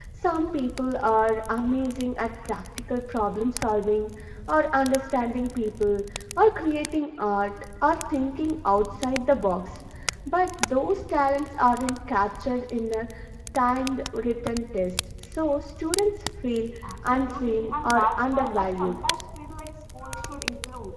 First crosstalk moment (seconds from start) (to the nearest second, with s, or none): 17 s